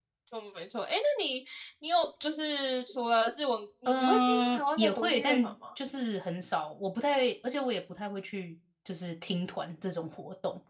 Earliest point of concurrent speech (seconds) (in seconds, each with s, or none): 3.9 s